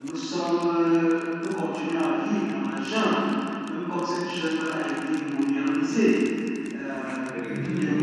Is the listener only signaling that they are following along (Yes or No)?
Yes